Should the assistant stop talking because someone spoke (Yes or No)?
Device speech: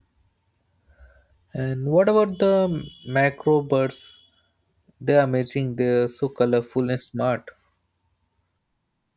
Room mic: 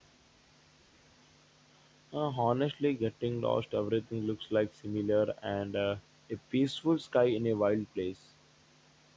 Yes